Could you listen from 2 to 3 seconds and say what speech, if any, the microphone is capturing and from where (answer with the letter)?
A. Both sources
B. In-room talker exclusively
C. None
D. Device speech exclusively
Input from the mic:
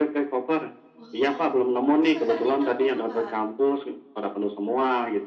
A